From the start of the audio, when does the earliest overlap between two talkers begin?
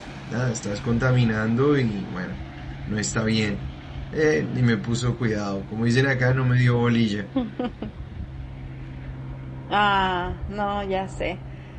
none

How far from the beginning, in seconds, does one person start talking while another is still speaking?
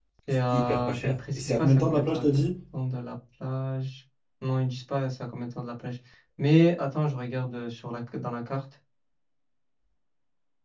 0.5 s

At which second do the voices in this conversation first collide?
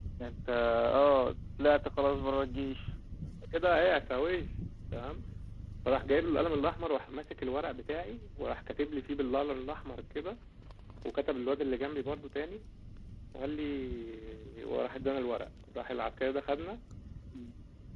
none

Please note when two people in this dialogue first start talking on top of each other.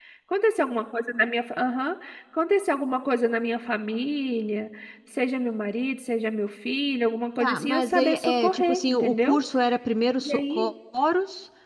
7.4 s

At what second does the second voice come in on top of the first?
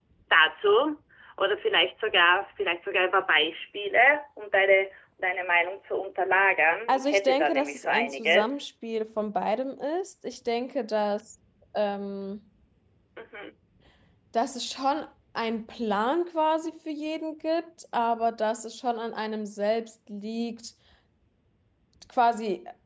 6.9 s

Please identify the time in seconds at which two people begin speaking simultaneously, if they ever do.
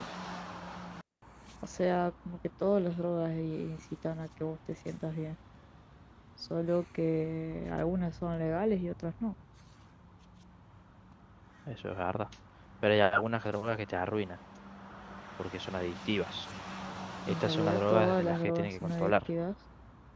17.3 s

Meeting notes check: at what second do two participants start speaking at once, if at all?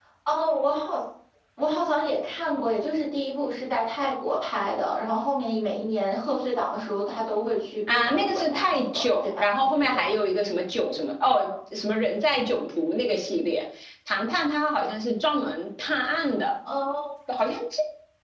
7.9 s

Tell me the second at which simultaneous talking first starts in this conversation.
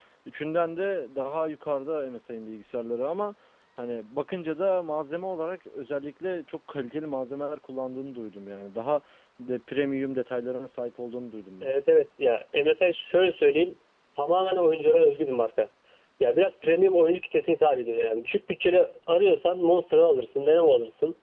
none

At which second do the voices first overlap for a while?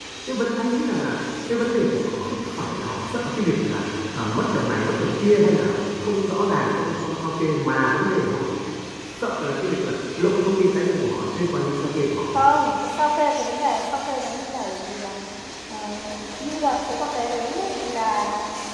none

